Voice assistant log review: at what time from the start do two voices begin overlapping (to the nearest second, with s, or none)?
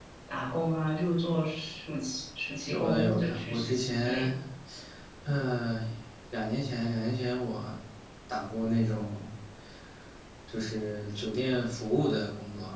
3 s